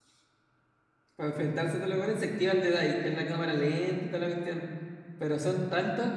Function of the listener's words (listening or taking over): listening